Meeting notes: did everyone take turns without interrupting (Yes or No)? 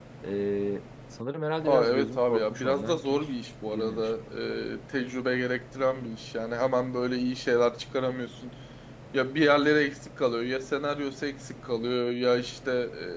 No